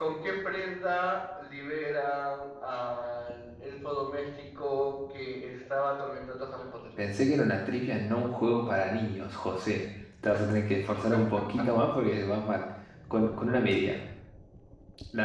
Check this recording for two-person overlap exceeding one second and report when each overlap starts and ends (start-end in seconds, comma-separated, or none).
none